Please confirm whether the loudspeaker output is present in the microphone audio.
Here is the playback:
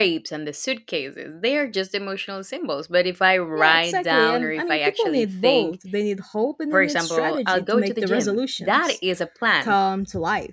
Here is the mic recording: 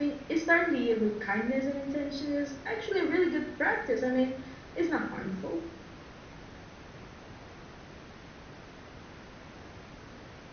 No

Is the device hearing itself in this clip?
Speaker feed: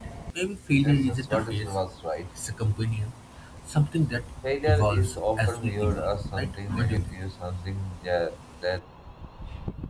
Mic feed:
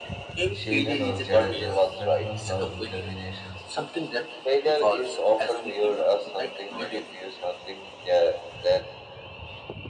Yes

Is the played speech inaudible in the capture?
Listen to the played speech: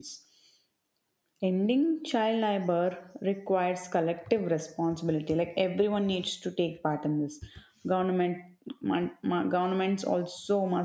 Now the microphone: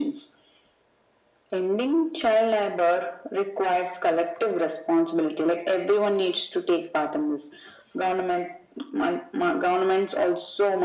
No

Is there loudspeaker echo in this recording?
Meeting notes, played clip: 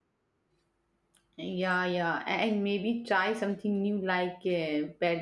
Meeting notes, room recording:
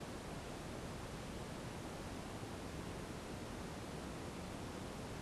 No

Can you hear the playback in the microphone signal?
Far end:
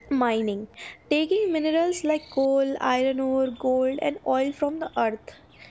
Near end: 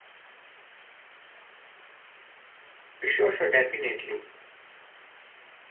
No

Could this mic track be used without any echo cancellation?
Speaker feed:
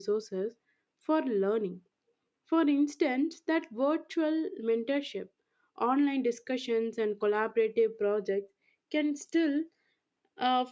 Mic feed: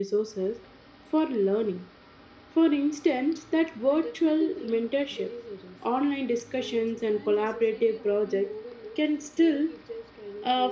No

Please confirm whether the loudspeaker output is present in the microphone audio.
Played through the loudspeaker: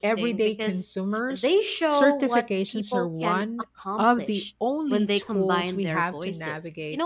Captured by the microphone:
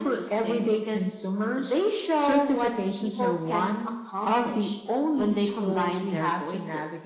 Yes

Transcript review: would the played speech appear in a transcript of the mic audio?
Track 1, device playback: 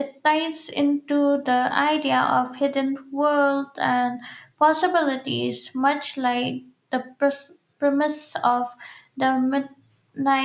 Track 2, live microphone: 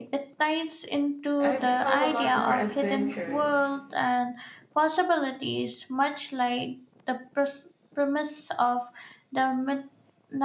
Yes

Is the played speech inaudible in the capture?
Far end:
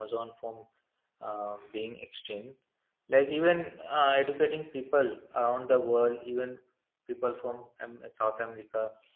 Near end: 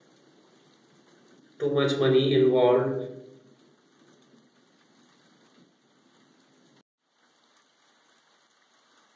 Yes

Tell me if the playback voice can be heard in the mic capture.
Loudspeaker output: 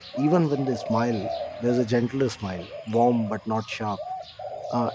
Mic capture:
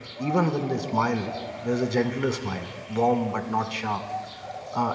Yes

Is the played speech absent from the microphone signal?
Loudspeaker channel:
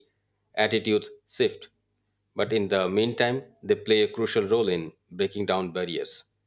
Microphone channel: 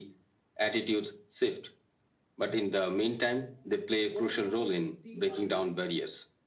No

